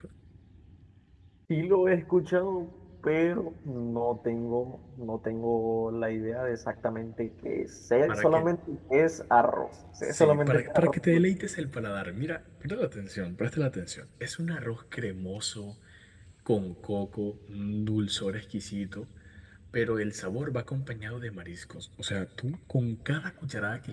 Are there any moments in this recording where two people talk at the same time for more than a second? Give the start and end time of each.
10.0-11.2

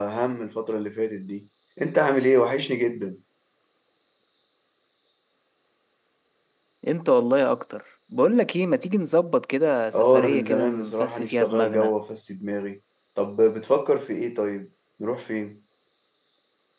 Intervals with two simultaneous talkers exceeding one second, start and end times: 9.9-11.9

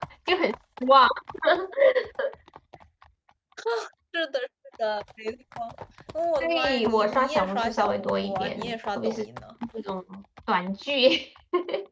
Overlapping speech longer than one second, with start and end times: 6.4-9.2

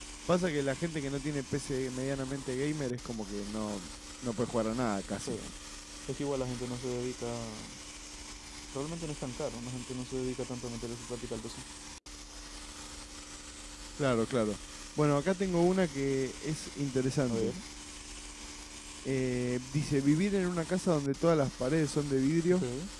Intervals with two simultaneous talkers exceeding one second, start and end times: none

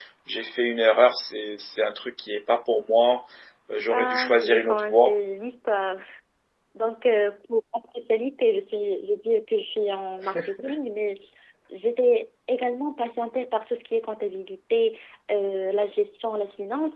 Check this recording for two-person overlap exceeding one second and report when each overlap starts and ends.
3.9-5.2

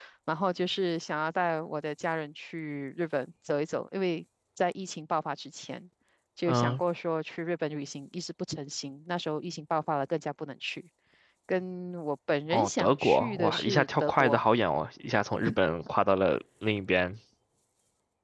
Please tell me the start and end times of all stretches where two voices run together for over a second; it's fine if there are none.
12.5-14.4

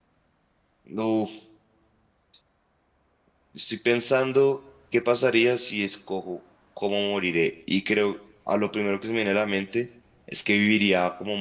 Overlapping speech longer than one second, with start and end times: none

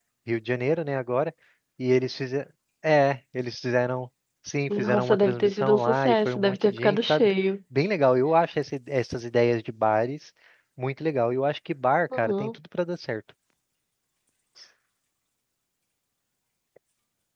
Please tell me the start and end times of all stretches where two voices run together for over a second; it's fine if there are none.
4.7-7.3

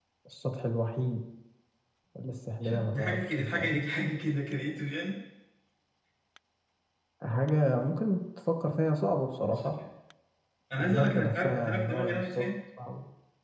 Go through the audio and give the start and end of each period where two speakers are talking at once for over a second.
2.6-3.8, 10.8-12.4

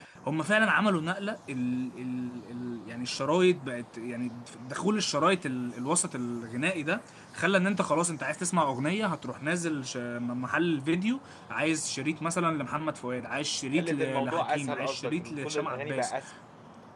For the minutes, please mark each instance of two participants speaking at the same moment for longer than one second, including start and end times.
13.7-16.1

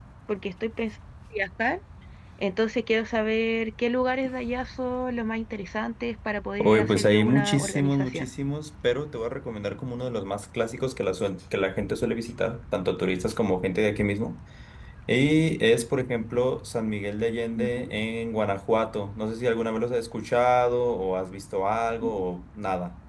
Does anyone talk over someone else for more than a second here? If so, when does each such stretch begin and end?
6.6-8.3

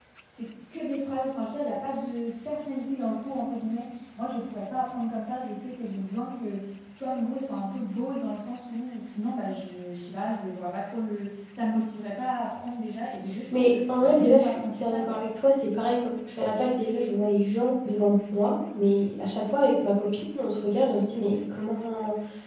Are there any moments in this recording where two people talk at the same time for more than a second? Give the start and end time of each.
13.5-15.2

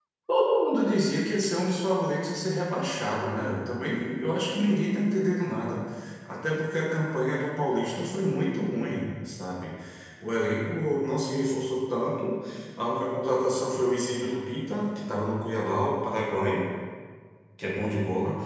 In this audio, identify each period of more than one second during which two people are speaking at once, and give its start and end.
none

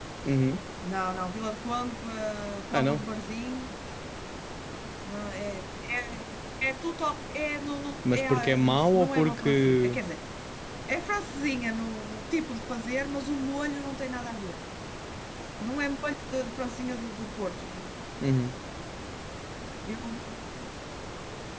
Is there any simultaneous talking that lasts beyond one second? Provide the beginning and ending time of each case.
8.1-10.0

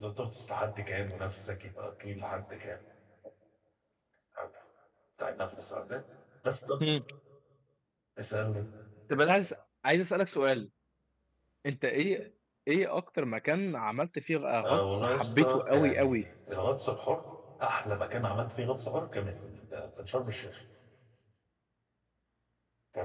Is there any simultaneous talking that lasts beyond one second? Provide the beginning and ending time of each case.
14.6-16.2

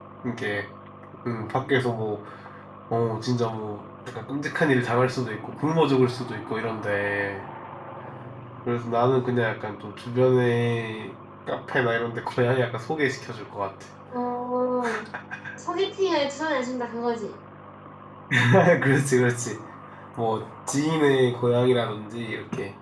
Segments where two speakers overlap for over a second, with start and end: none

